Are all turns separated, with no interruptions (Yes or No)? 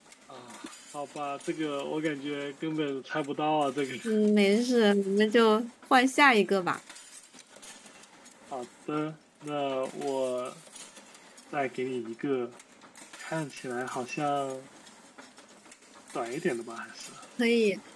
Yes